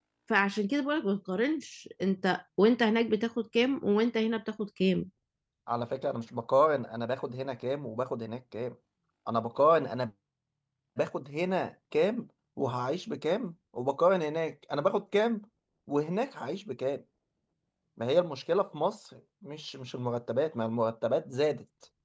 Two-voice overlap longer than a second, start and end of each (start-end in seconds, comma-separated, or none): none